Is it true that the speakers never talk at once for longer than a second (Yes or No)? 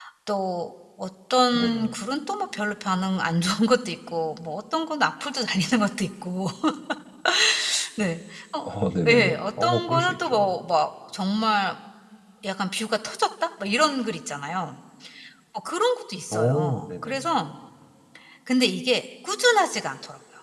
No